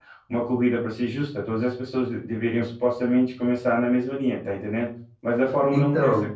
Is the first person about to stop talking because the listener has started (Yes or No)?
No